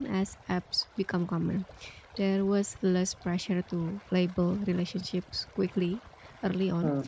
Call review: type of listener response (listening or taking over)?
listening